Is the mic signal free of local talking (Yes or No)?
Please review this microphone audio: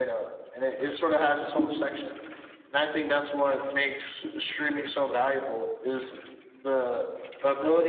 No